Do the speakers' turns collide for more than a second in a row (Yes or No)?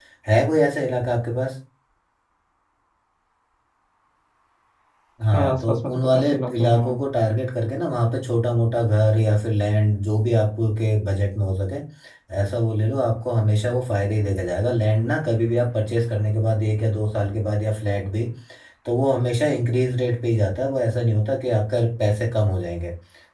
Yes